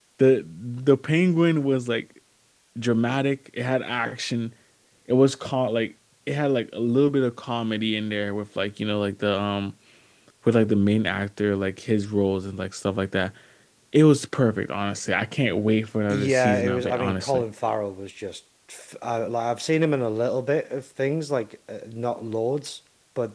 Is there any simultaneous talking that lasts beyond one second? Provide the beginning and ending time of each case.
16.1-17.4

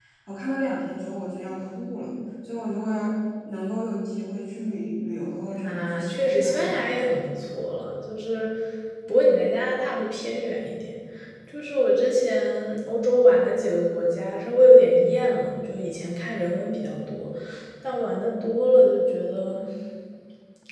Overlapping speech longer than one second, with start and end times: 5.6-7.1

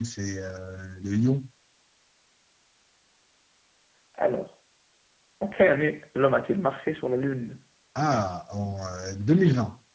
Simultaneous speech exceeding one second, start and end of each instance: none

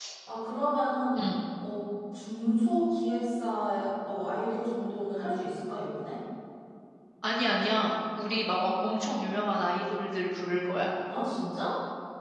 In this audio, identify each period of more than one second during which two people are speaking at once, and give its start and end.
none

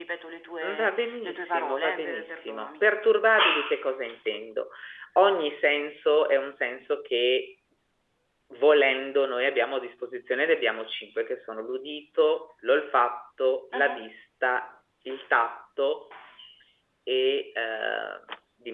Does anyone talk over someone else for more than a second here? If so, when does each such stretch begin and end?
0.8-2.8

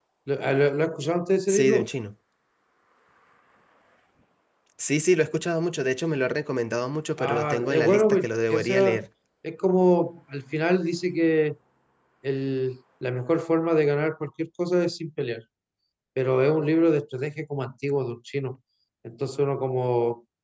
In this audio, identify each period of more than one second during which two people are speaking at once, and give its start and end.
7.2-9.0

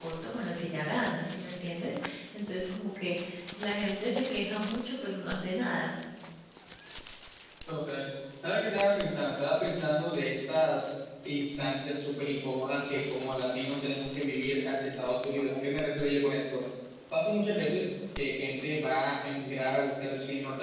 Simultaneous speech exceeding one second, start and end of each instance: none

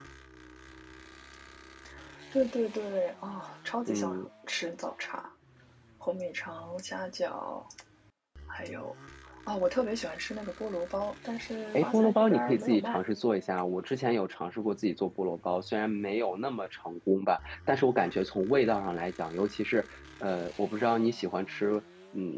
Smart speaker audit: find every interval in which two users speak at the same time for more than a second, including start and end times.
11.7-13.0

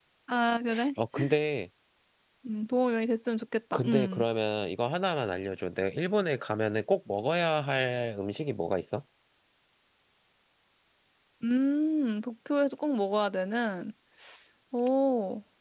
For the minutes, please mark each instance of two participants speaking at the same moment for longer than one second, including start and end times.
none

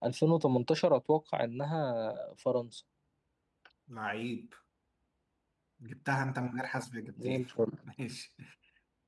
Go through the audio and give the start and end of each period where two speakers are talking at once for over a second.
none

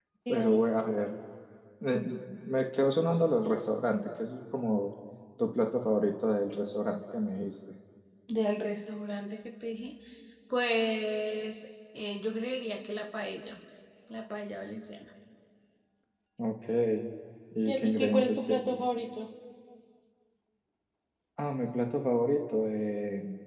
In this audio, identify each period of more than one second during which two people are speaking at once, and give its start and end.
17.6-18.8

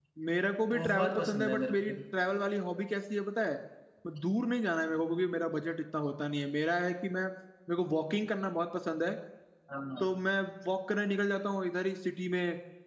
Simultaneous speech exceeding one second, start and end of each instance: 0.7-1.9

